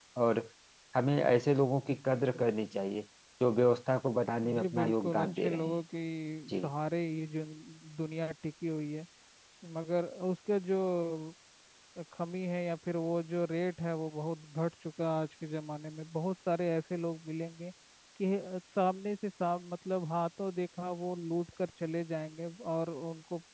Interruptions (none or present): present